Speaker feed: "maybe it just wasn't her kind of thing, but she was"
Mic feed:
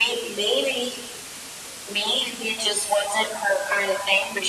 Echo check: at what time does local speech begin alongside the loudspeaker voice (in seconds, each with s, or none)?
none